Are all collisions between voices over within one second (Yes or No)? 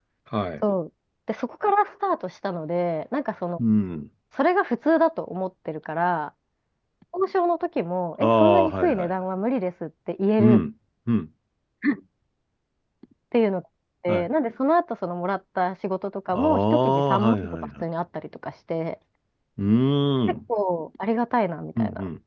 No